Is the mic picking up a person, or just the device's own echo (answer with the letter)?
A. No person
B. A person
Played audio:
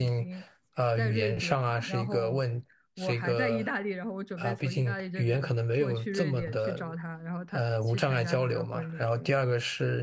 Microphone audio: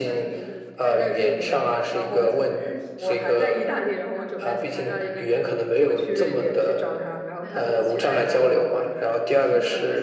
B